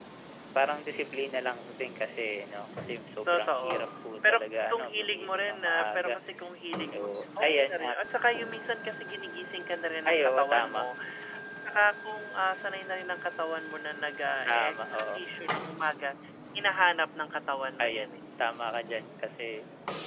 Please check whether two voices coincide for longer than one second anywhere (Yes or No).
Yes